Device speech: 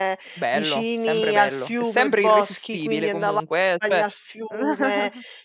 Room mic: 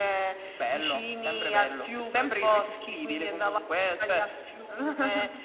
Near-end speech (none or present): none